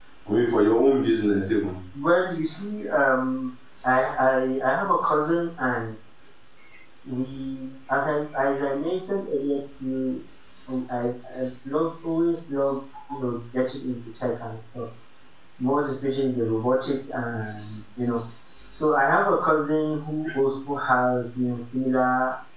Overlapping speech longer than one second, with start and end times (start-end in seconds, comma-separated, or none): none